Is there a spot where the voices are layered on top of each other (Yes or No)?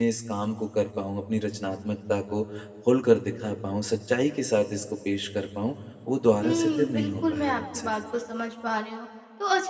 Yes